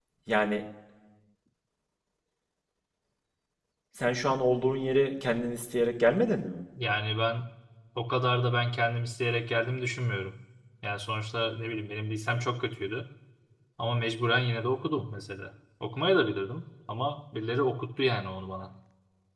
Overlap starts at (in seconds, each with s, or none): none